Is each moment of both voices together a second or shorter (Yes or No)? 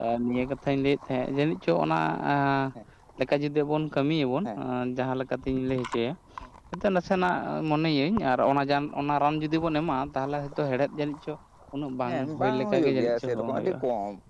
No